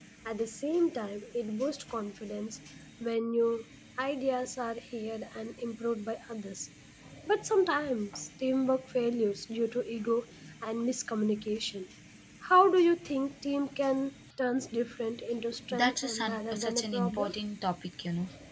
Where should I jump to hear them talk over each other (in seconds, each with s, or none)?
15.7 s